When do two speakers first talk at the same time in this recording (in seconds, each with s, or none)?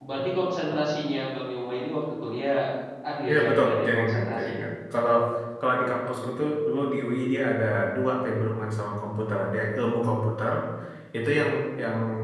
3.3 s